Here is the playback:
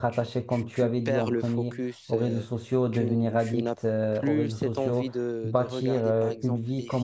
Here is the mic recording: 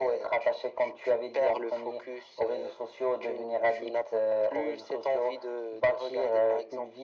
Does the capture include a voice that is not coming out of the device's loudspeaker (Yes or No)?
No